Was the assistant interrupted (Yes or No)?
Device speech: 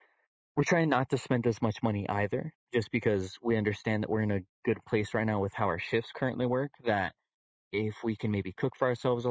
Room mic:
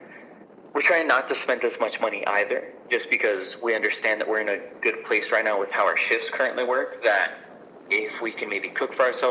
No